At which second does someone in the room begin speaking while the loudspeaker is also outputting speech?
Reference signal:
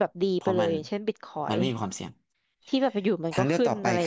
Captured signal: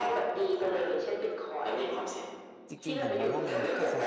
2.7 s

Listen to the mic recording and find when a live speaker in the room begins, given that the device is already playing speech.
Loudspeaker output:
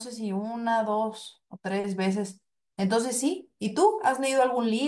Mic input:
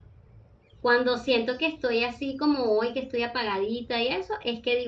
0.8 s

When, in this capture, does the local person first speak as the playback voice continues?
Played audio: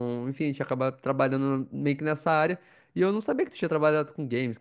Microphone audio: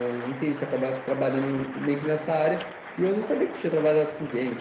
none

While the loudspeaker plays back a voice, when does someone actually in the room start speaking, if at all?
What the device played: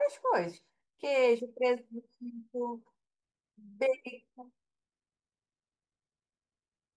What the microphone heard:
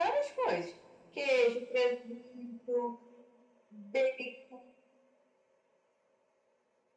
none

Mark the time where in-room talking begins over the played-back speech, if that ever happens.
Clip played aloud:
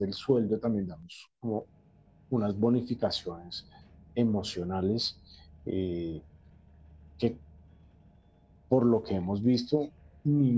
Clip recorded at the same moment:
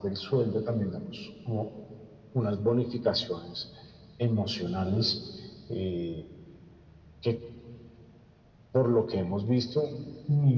none

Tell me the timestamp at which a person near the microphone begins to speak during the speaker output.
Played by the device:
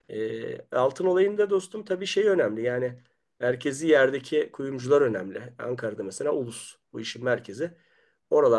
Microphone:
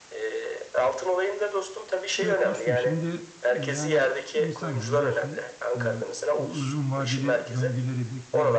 2.2 s

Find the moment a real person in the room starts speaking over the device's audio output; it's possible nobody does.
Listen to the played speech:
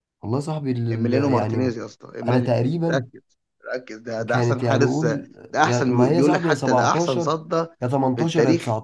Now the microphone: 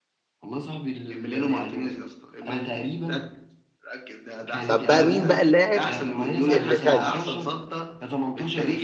4.7 s

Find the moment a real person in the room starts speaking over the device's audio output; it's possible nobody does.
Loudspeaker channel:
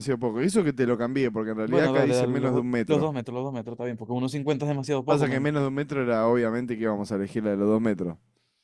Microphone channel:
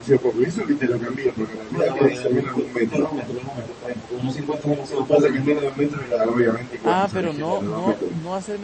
6.8 s

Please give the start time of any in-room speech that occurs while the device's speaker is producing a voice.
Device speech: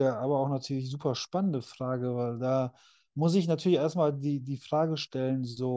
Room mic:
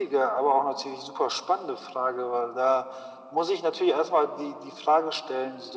none

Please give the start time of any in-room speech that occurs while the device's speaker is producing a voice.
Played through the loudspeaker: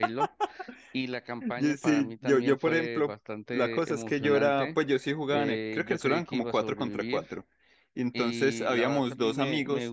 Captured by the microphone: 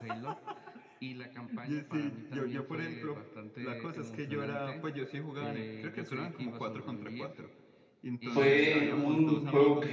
8.2 s

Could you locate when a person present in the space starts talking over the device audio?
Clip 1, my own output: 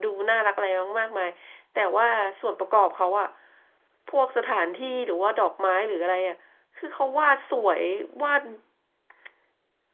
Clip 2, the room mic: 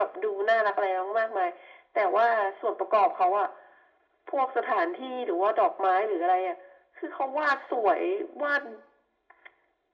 none

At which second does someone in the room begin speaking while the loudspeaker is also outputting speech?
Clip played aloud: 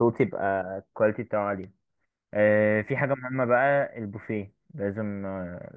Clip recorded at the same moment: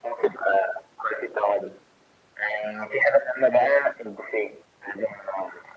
none

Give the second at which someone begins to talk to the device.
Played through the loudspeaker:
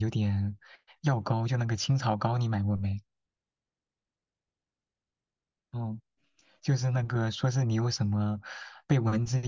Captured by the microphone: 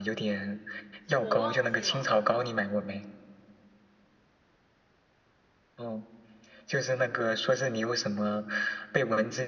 1.2 s

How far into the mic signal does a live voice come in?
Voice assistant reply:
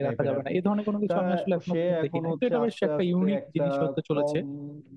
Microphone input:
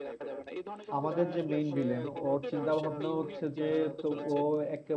1.0 s

